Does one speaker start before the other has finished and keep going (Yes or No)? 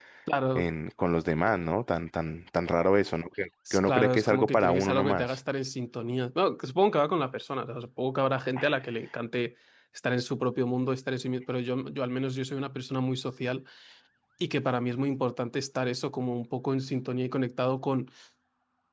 Yes